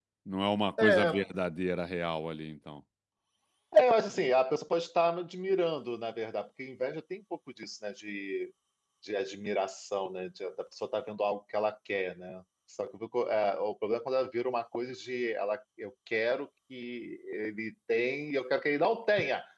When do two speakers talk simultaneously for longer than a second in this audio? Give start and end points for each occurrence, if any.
none

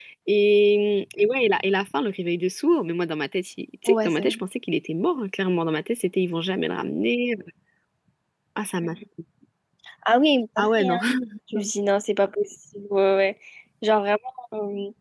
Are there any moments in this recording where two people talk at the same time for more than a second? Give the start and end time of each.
none

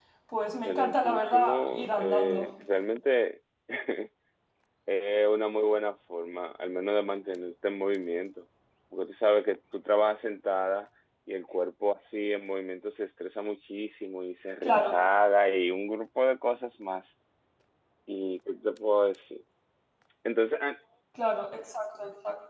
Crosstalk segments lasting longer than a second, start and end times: 0.5-2.5

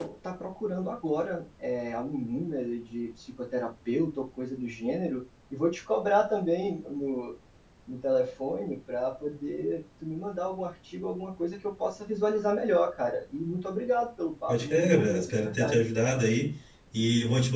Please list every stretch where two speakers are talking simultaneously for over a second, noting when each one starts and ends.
14.5-15.8

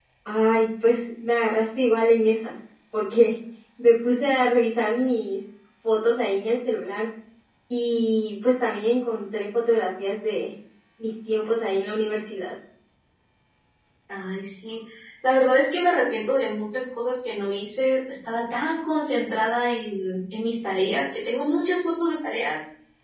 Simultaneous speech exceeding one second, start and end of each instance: none

